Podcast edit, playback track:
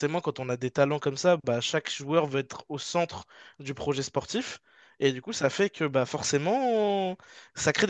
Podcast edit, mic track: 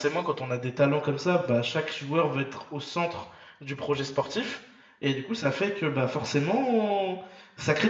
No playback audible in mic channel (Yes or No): No